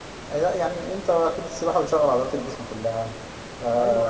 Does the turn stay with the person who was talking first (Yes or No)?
No